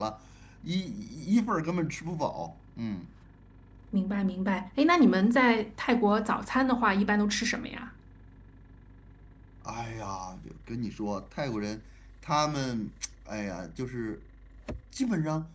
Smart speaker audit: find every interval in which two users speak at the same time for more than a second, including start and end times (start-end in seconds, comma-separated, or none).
none